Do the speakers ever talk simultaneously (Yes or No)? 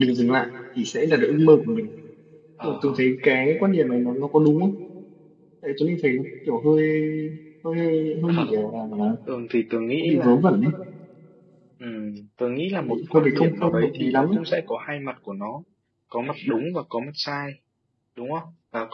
Yes